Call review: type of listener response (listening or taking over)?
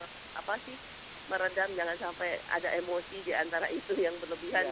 taking over